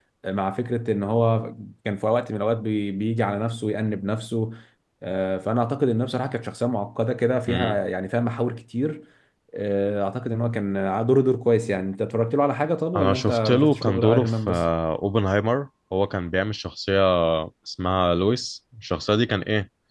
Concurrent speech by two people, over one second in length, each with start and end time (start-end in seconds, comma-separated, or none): 13.0-14.7